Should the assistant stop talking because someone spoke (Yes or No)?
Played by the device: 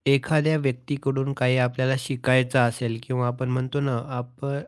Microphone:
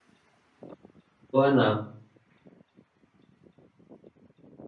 Yes